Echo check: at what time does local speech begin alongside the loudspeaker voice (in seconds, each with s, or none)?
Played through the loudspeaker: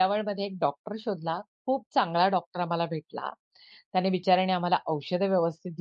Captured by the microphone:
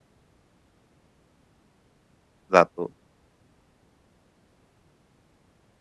2.5 s